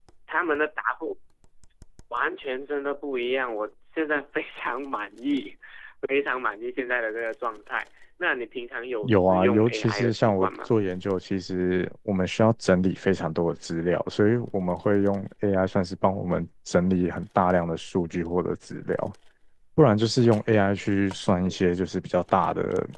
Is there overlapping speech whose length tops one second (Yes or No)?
Yes